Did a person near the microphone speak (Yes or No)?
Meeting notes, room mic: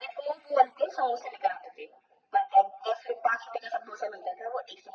No